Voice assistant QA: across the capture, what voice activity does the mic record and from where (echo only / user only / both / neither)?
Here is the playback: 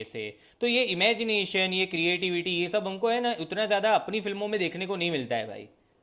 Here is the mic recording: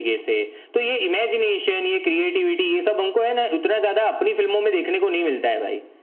echo only